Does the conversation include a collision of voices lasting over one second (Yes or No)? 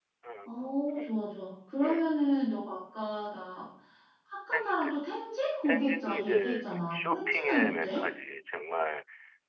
Yes